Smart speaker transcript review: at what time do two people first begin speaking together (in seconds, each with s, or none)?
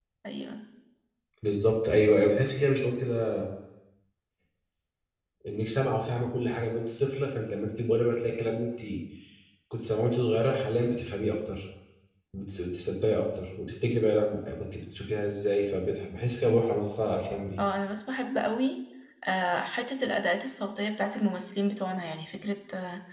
none